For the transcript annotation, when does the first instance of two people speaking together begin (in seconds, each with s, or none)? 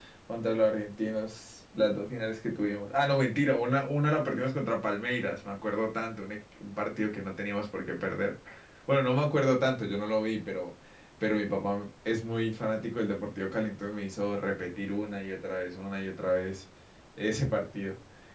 none